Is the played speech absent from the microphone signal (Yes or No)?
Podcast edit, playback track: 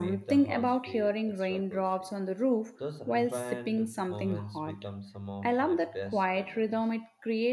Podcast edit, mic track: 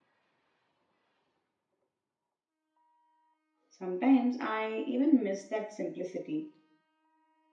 Yes